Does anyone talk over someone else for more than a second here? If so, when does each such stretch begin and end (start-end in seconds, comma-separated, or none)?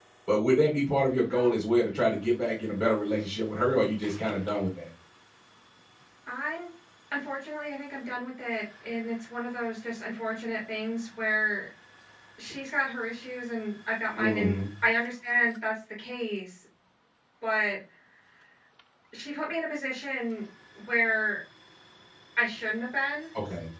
none